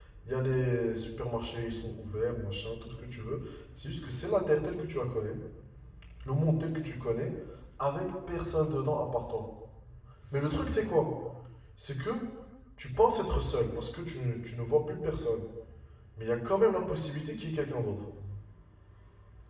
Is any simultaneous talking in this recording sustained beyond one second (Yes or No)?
No